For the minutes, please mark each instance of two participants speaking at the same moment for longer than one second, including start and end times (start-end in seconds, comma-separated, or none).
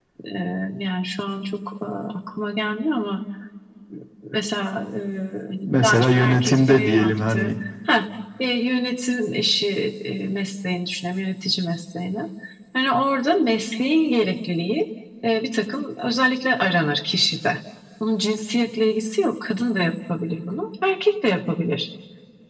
5.8-7.6